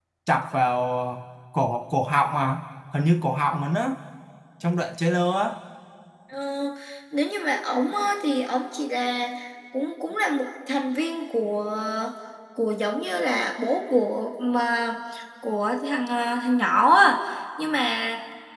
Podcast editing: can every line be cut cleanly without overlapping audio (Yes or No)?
Yes